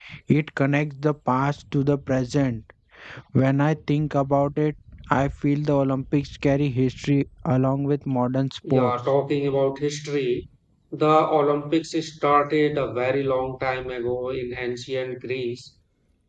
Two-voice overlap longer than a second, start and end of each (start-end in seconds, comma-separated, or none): none